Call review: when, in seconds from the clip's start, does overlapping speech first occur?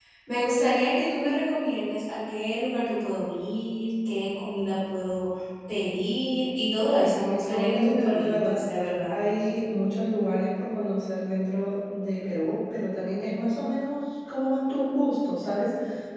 7.1 s

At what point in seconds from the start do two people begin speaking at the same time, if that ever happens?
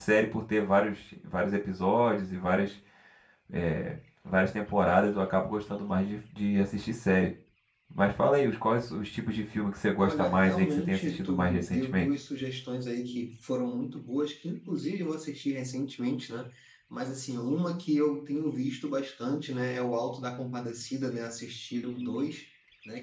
10.0 s

